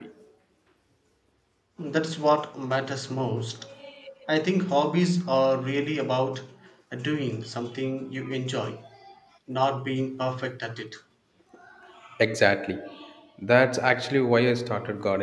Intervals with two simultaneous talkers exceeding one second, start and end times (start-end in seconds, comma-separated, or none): none